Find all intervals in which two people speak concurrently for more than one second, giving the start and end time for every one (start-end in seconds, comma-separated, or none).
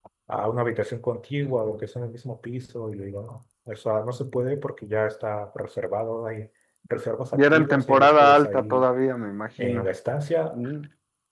7.3-8.8